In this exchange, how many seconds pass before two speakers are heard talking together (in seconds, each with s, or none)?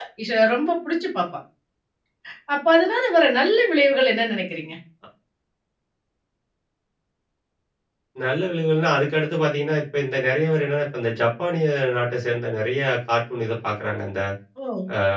none